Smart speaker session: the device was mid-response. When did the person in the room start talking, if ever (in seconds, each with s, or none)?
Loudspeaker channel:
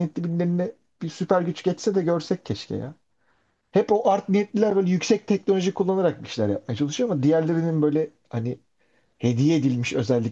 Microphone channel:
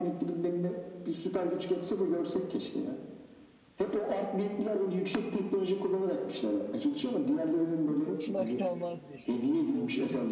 7.9 s